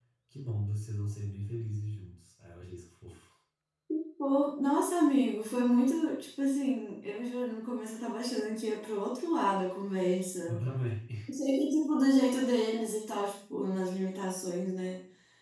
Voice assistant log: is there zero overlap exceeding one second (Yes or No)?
Yes